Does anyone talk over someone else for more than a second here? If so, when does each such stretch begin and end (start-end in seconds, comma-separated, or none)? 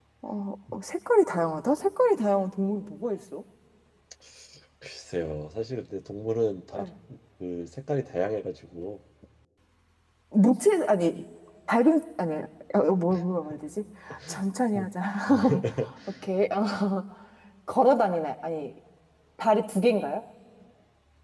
none